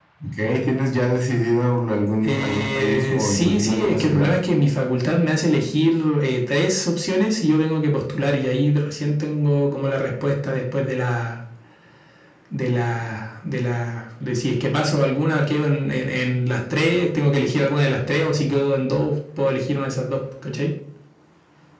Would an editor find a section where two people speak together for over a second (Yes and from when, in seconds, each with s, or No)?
Yes, from 2.2 s